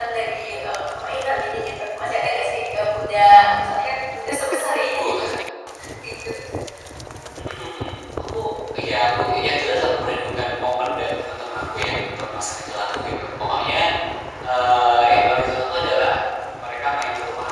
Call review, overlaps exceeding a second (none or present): none